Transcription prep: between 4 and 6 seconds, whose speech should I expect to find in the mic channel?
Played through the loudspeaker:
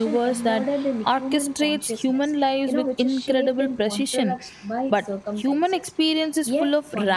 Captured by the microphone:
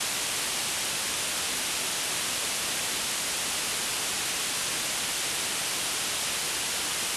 neither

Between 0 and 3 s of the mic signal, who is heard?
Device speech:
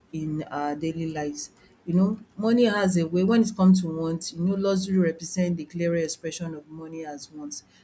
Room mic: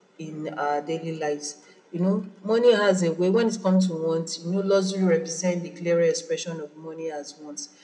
echo only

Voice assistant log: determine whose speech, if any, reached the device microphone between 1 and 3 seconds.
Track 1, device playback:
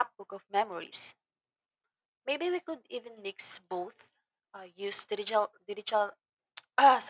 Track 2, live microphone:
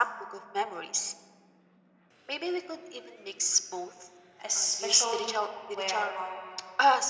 echo only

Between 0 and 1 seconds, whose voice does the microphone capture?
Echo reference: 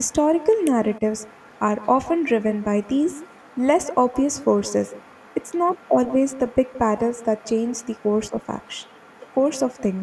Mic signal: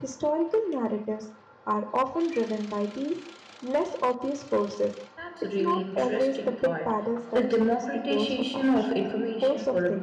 echo only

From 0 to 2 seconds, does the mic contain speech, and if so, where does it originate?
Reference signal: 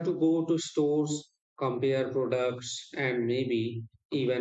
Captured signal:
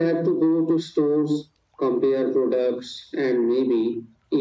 echo only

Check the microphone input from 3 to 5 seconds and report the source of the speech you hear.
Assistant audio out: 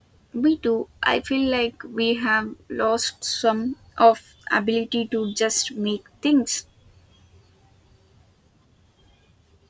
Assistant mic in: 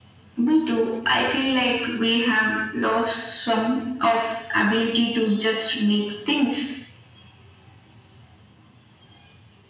echo only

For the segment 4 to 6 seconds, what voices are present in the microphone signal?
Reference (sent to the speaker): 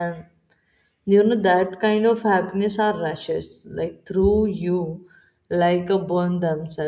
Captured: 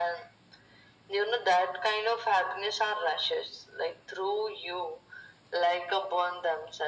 echo only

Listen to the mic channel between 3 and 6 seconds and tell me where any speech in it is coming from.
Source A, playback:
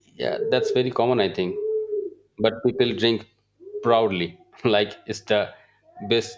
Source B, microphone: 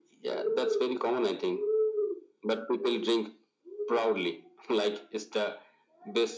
echo only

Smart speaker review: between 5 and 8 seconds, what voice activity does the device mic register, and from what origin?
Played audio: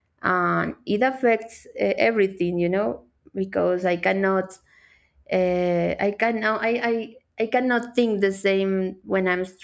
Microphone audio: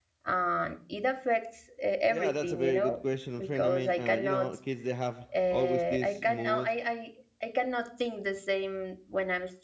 both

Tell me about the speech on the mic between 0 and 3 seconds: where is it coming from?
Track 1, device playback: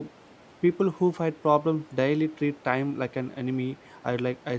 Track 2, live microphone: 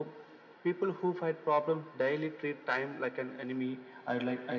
echo only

